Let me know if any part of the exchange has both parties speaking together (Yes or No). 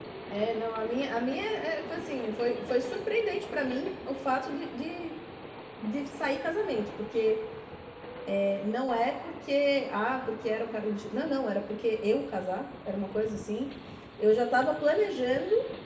No